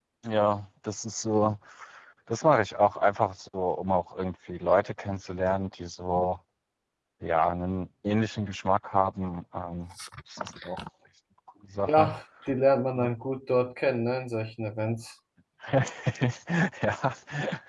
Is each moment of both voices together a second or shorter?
Yes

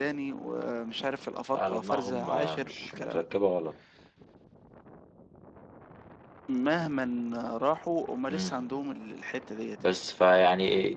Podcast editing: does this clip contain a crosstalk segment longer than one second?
Yes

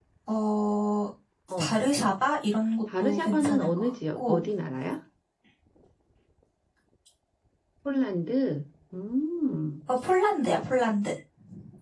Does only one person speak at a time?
No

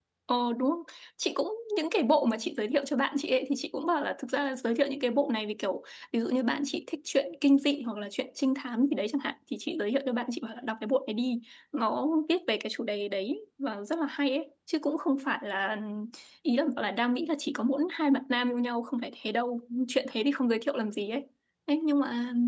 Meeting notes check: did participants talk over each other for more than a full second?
No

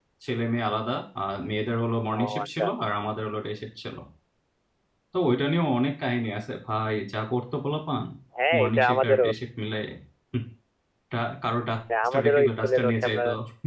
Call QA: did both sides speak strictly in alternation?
No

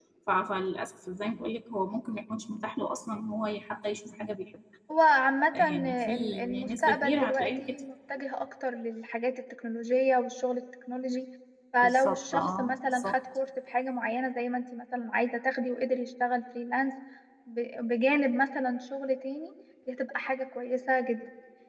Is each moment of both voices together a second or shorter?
No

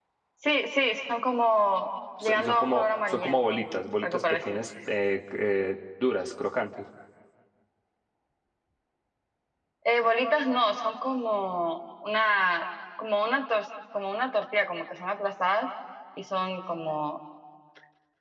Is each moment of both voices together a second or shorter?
No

